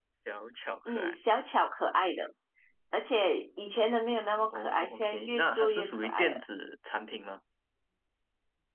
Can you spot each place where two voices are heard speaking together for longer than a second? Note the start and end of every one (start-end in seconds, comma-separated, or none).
4.5-6.4